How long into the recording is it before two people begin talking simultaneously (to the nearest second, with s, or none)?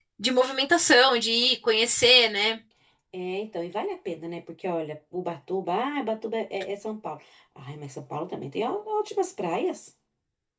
none